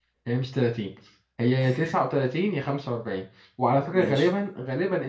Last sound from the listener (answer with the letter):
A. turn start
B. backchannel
B